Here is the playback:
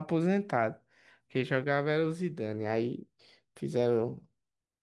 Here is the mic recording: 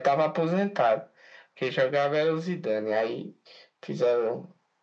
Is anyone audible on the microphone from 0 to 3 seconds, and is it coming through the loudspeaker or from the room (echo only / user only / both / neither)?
echo only